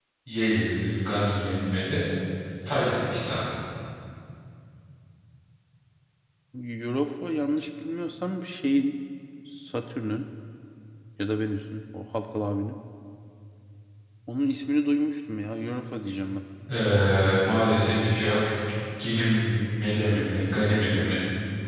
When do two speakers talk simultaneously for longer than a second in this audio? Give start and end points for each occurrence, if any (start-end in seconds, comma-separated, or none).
none